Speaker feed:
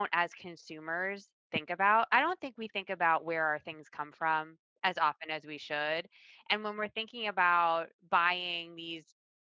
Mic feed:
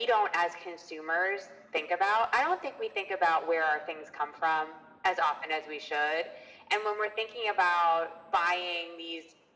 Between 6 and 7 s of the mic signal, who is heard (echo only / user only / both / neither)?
echo only